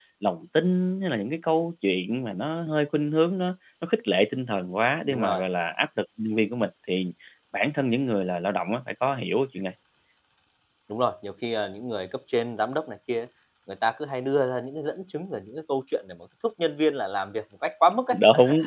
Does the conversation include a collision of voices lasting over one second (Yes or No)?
No